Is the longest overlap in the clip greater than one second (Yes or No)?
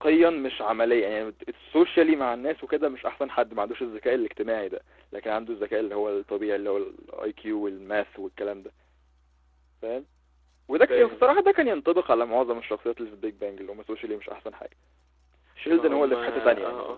Yes